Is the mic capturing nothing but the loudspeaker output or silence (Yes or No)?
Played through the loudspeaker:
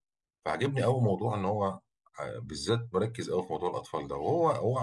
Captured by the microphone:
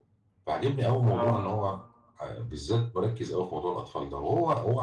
No